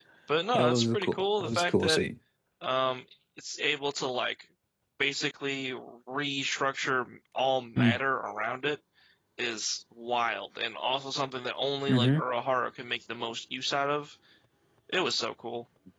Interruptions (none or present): present